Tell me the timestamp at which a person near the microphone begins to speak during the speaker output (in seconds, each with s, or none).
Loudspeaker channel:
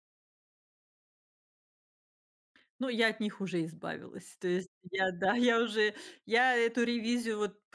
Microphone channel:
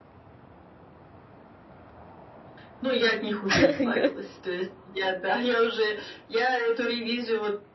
3.5 s